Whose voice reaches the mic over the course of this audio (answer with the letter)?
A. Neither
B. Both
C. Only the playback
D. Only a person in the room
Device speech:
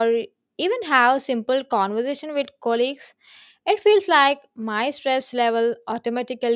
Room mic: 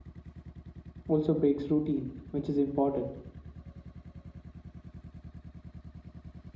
D